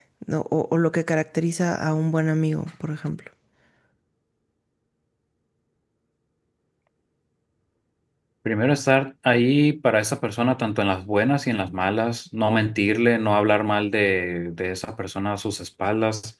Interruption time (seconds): none

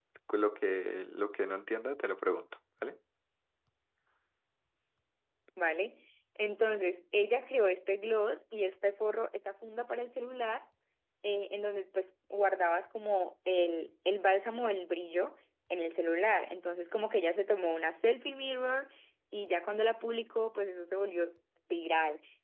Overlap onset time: none

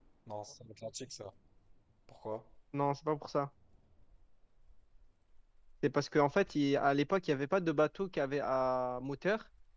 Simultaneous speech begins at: none

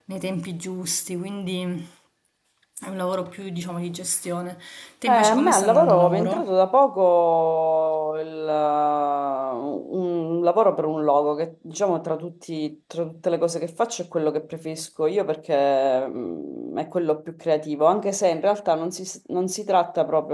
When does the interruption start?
5 s

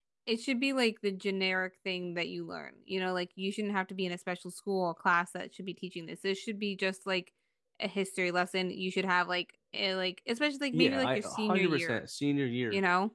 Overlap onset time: 11 s

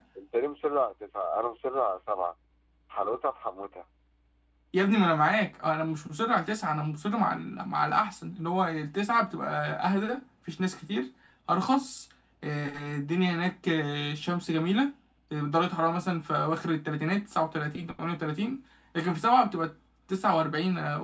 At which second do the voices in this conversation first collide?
none

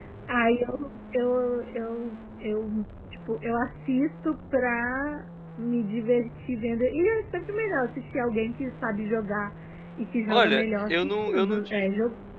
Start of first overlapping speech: 10 s

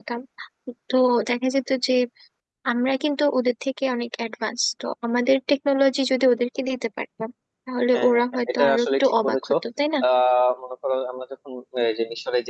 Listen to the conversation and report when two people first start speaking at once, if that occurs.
8 s

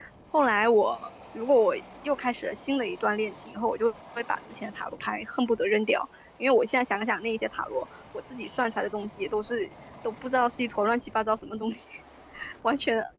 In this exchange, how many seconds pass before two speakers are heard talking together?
none

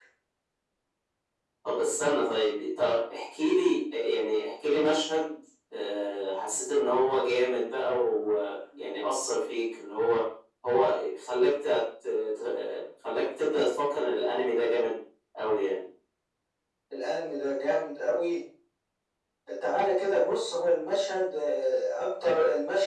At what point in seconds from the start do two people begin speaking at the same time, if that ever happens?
none

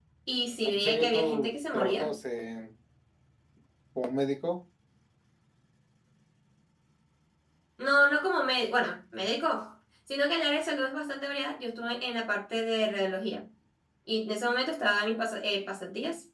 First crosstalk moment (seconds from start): 1 s

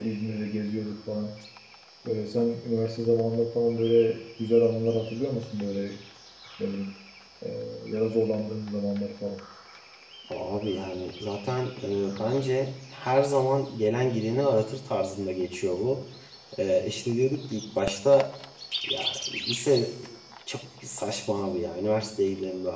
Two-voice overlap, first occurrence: none

